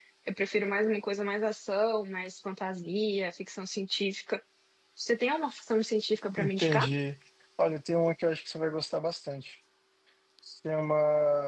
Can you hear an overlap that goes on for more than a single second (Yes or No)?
No